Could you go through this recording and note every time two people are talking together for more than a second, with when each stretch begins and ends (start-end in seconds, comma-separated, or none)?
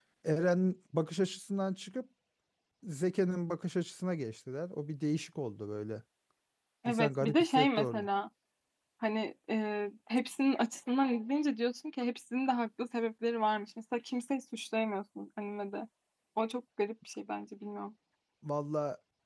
6.9-8.1